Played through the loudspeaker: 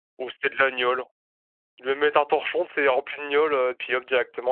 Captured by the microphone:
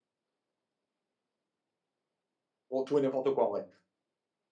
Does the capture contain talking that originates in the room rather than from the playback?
Yes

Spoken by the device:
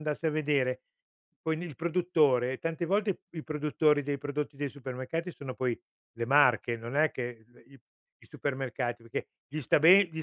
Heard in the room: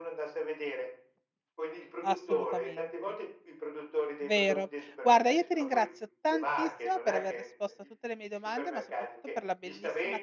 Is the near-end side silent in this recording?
No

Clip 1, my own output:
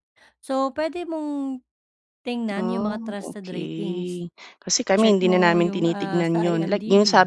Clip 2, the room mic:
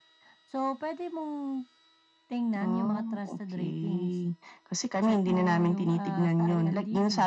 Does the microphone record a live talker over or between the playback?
No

